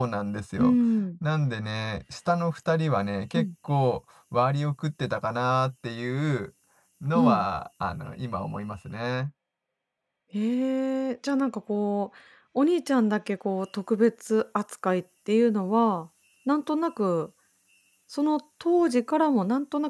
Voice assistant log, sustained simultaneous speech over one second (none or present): none